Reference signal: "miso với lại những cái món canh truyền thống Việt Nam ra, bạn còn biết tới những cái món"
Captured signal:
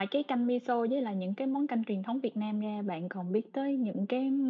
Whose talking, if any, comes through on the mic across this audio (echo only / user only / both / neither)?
echo only